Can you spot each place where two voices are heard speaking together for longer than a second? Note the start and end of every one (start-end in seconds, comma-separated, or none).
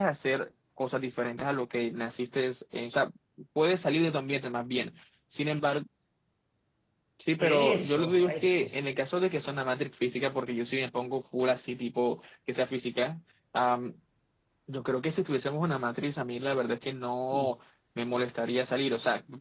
7.4-8.8